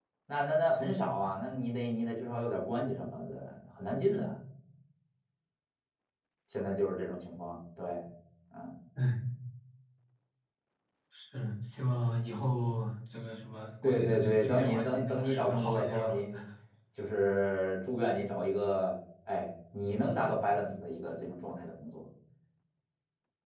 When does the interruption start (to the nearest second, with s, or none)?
14 s